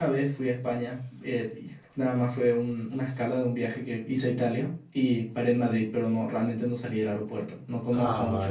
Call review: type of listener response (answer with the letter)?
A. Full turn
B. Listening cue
A